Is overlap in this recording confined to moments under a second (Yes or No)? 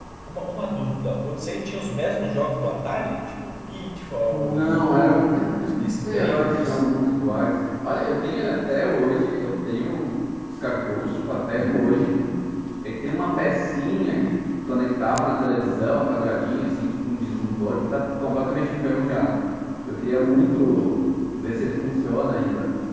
No